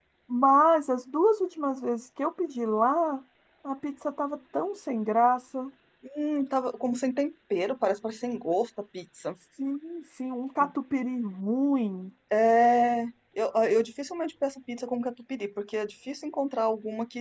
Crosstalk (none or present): none